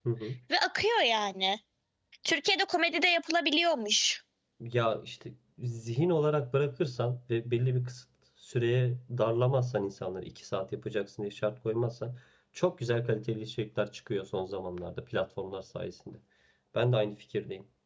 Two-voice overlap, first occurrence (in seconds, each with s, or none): none